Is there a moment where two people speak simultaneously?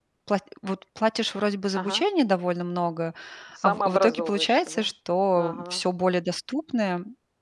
Yes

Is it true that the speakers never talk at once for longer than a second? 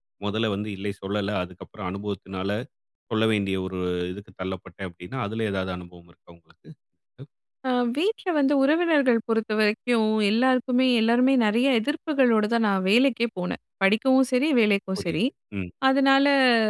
Yes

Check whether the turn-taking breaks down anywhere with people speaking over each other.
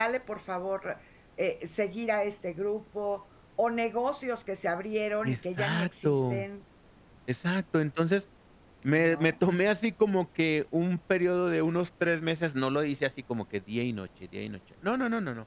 Yes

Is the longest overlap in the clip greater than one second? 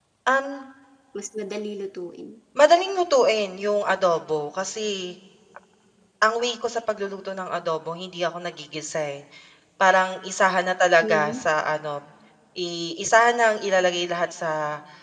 No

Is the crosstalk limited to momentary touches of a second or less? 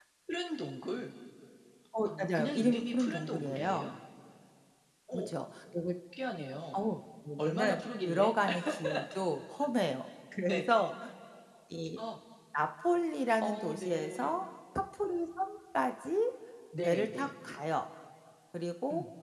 No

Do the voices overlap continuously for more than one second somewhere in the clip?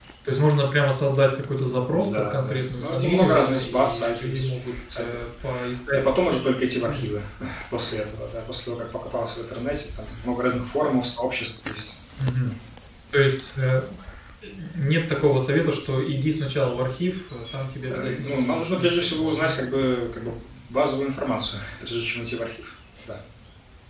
Yes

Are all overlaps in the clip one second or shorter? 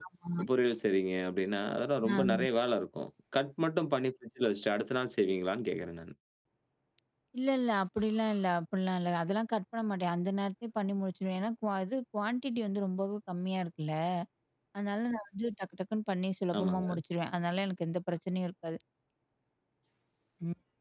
Yes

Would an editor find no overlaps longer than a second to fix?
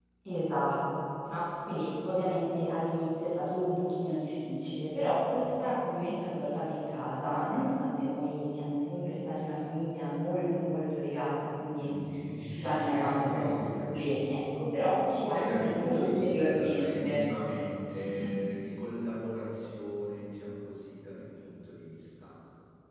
No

